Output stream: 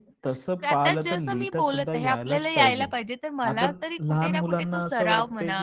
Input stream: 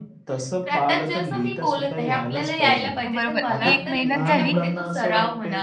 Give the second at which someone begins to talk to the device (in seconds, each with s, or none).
3.1 s